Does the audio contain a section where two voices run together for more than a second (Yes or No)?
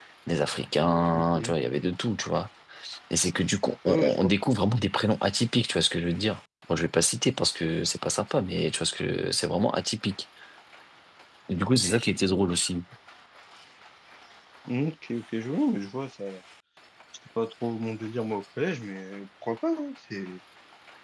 No